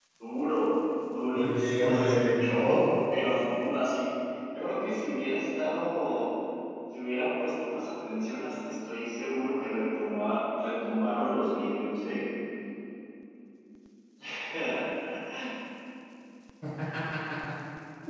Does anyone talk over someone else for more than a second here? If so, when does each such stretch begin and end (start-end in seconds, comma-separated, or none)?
1.4-2.8